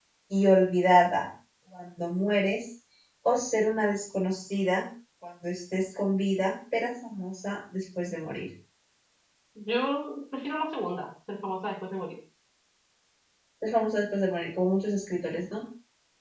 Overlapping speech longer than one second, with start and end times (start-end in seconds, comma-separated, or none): none